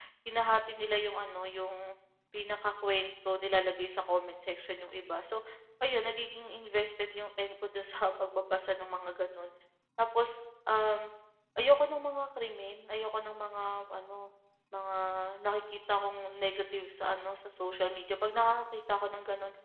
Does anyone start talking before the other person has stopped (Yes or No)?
No